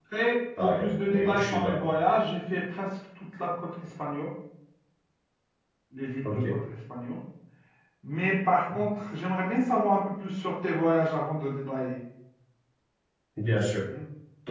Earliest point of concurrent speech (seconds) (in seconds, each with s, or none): 0.6 s